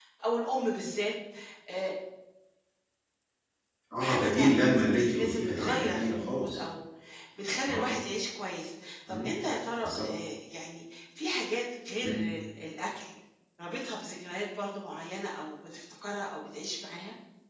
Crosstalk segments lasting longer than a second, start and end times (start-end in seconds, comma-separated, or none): 4.0-6.6